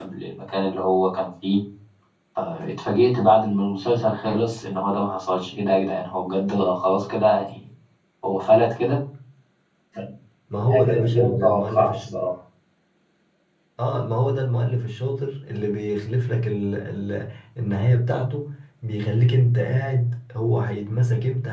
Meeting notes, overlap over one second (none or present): present